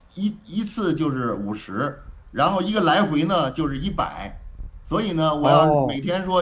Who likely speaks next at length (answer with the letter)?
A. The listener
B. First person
B